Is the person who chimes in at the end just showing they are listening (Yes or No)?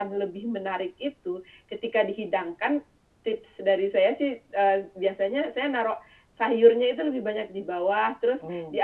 Yes